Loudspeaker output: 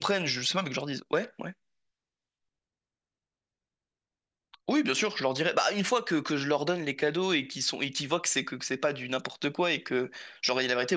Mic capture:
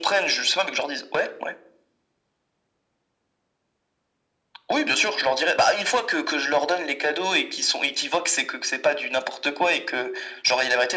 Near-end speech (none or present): none